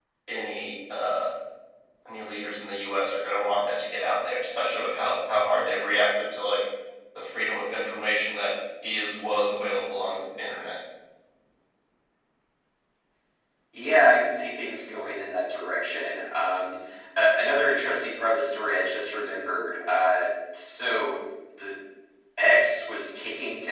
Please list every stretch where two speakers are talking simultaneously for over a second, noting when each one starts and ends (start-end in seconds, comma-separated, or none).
none